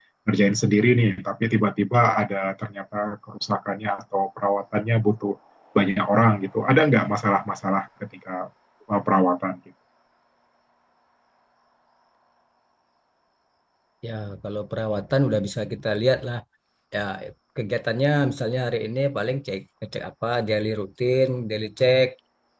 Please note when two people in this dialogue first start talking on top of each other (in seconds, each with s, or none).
none